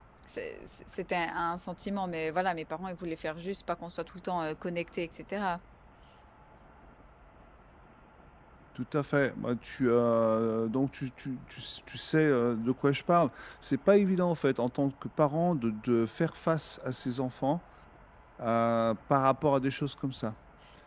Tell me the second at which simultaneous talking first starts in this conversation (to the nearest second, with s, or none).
none